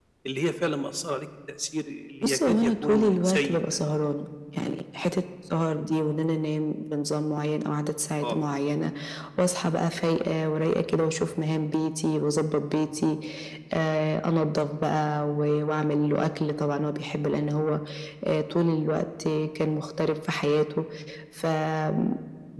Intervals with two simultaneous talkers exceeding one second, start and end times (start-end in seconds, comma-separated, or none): 2.2-3.6